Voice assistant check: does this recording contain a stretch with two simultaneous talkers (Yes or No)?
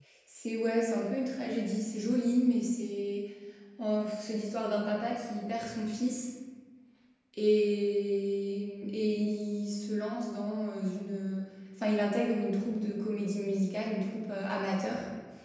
No